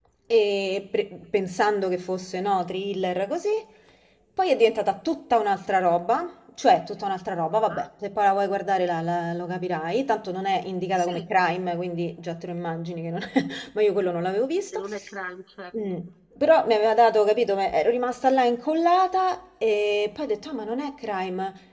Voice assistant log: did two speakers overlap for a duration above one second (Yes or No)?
No